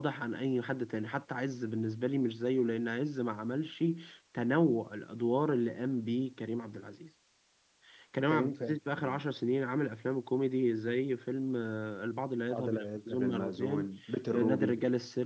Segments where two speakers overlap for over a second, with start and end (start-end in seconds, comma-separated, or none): 12.5-13.9